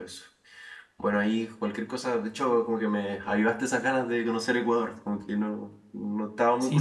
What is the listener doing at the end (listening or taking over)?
taking over